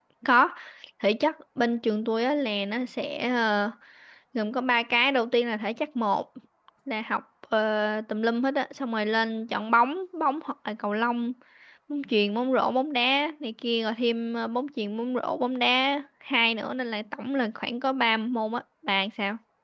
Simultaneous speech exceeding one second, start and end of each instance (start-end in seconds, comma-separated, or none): none